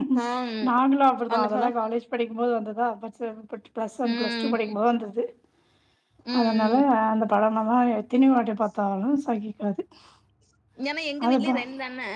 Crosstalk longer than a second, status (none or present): none